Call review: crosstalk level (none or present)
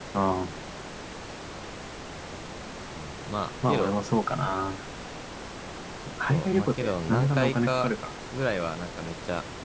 present